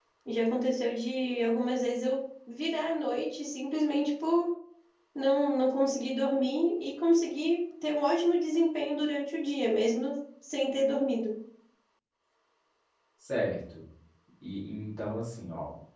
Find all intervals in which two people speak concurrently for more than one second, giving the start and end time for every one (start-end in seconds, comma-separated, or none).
none